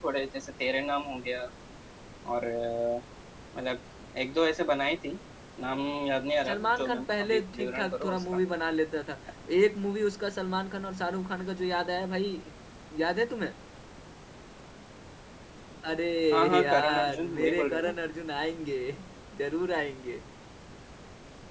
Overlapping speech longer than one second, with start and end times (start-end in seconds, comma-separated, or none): 6.5-8.2, 16.6-17.9